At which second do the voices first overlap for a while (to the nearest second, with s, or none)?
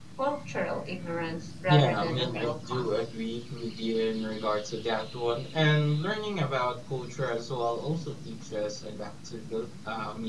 2 s